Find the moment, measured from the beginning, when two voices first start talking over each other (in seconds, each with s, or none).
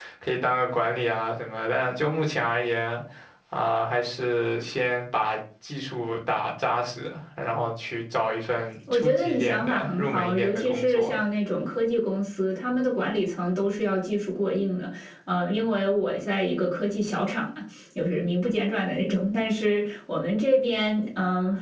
8.9 s